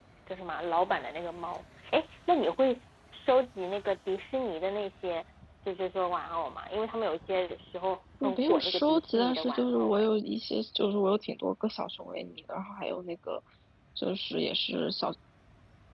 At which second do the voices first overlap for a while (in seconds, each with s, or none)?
8.2 s